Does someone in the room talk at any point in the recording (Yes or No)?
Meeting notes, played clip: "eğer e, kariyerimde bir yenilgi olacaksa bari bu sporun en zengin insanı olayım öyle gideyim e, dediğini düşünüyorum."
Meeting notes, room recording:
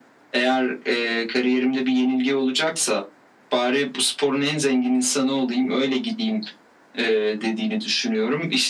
No